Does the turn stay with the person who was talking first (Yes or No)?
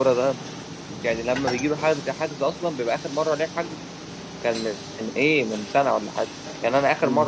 Yes